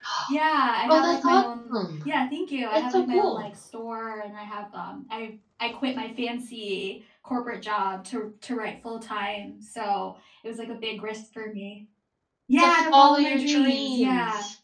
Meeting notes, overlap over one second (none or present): present